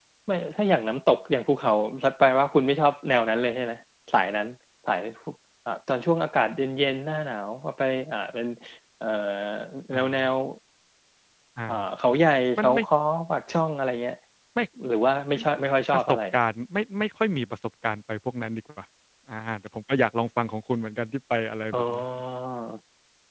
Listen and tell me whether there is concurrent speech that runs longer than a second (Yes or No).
No